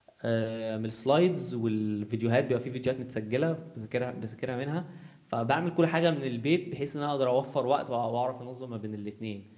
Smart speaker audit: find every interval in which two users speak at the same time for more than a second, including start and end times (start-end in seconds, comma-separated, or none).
none